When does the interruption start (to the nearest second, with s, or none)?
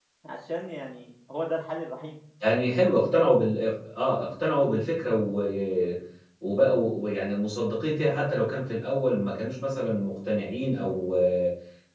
none